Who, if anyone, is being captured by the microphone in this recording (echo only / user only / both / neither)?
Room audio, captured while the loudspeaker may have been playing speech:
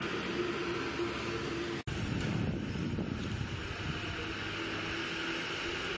neither